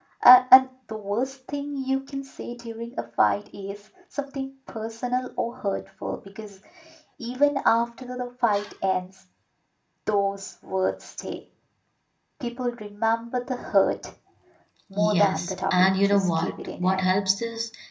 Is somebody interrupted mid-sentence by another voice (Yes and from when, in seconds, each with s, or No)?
Yes, from 14.9 s